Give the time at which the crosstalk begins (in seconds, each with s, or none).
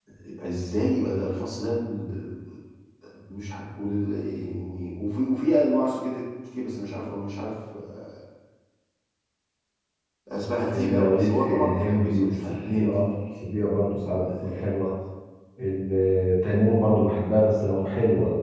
10.7 s